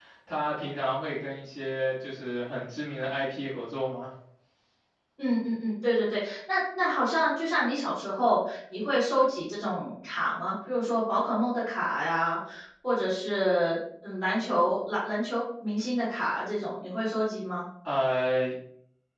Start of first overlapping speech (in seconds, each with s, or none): none